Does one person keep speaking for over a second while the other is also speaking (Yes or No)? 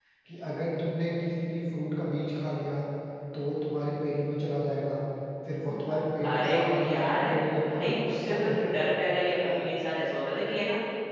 Yes